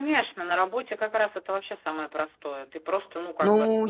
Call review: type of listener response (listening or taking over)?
taking over